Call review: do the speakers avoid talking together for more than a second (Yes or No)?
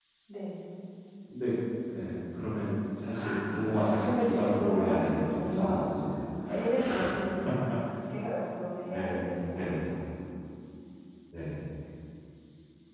No